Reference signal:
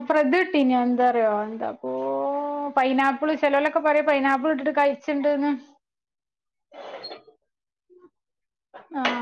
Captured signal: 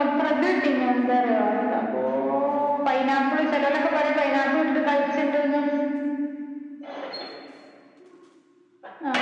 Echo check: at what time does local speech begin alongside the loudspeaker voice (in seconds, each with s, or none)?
none